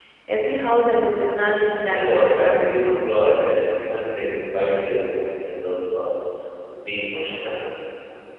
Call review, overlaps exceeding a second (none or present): present